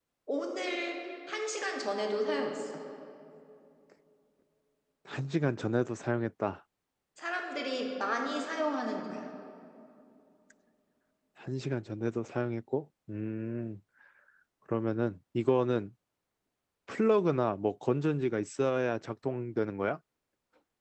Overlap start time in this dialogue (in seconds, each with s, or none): none